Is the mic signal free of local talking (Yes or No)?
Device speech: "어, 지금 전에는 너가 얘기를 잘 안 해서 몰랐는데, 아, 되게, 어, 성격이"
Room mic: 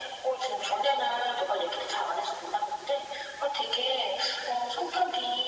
Yes